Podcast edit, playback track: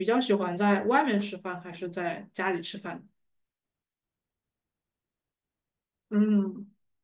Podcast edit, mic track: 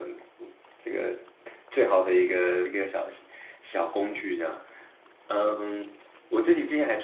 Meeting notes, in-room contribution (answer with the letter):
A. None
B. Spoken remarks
B